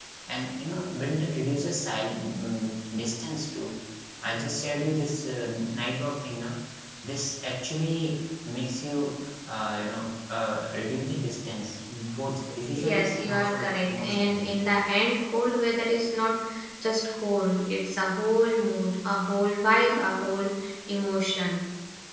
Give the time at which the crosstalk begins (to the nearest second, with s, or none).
13 s